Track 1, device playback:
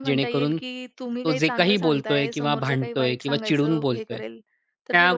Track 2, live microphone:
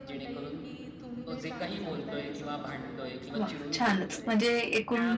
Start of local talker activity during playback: 3.4 s

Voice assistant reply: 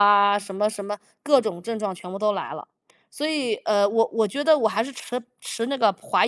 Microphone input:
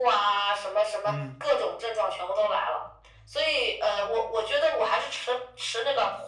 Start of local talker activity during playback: 1.0 s

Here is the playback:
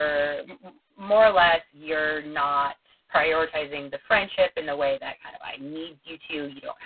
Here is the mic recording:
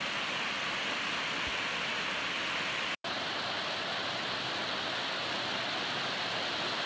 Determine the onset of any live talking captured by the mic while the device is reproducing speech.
none

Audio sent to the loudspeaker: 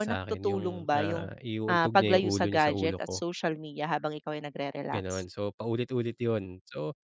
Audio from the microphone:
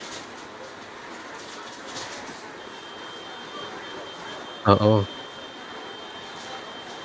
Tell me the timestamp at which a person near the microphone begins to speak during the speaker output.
4.7 s

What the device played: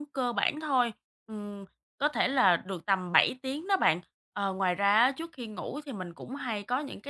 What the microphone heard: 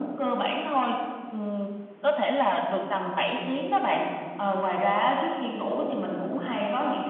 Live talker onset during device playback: none

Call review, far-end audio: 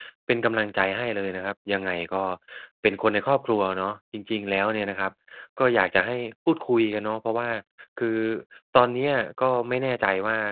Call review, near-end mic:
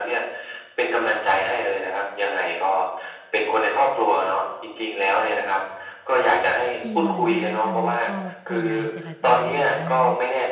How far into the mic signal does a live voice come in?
6.8 s

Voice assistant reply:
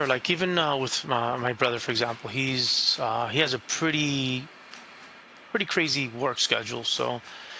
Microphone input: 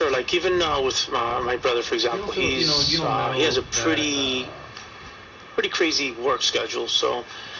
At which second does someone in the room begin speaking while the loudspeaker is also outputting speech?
2.1 s

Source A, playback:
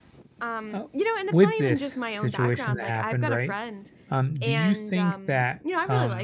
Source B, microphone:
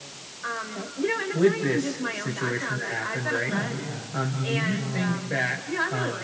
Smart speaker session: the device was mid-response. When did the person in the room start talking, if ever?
3.5 s

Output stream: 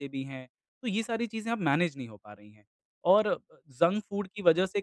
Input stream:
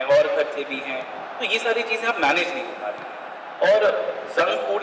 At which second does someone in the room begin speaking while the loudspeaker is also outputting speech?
none

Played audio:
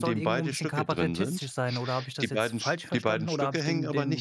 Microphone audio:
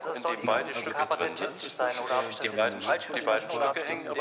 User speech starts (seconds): 0.4 s

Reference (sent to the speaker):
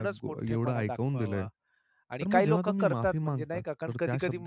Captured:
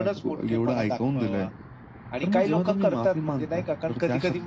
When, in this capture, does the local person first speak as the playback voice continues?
none

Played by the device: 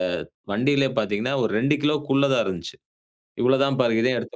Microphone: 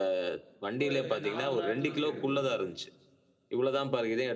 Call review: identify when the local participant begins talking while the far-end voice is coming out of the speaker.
0.8 s

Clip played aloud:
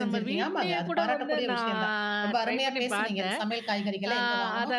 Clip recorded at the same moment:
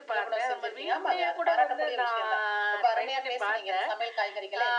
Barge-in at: none

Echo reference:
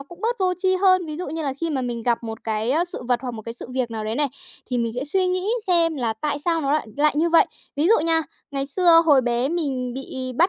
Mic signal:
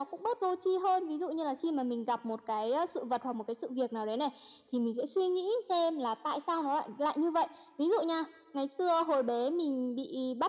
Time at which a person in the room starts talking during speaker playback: none

